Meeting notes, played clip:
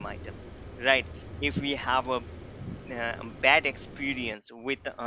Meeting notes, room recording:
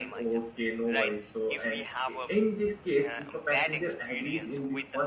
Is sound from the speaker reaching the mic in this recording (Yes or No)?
Yes